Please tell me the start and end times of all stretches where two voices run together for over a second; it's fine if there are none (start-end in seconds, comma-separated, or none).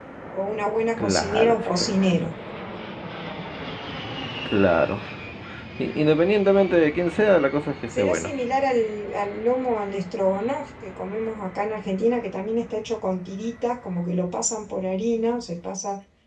1.0-2.3